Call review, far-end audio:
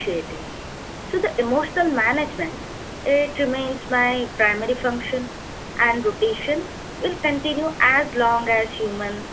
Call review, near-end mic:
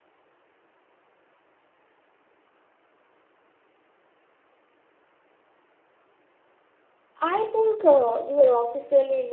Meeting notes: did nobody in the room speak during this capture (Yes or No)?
No